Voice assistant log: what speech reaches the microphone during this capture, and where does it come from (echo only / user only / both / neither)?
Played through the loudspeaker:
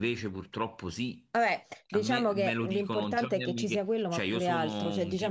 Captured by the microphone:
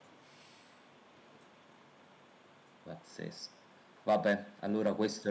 user only